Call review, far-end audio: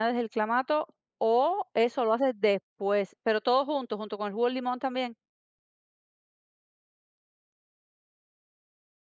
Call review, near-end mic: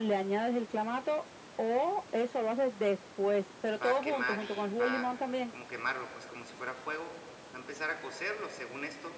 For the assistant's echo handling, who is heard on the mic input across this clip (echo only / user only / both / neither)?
both